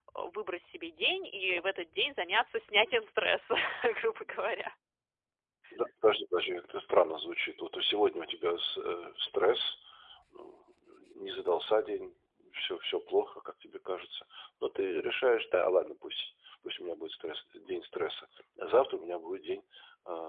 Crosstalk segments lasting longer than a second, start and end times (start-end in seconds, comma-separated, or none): none